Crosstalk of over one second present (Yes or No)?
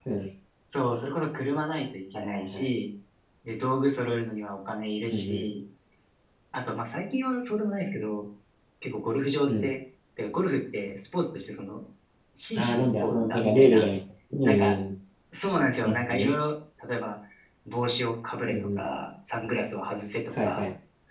Yes